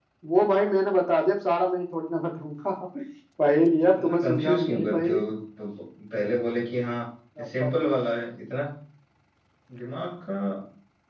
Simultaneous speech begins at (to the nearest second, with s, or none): 4 s